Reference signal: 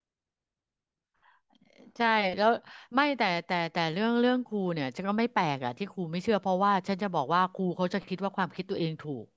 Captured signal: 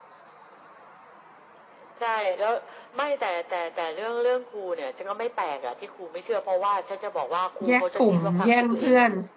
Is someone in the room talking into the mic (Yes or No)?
Yes